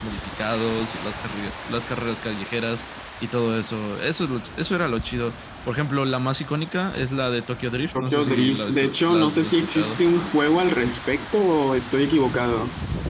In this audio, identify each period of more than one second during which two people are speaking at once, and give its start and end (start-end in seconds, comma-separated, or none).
8.0-10.0